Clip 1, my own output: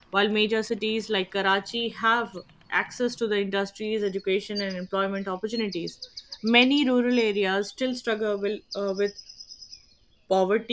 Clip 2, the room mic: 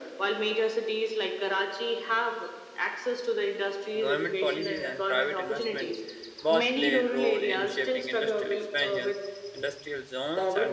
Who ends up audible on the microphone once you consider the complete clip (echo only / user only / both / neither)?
both